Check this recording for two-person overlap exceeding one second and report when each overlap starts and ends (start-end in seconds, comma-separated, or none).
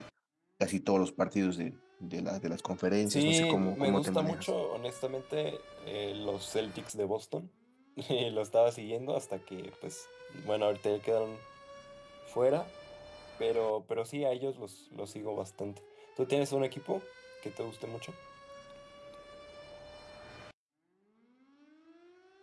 3.1-4.5